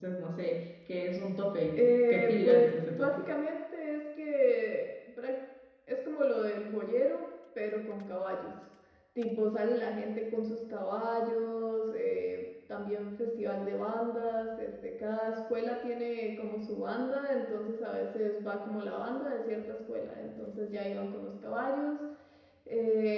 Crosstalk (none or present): present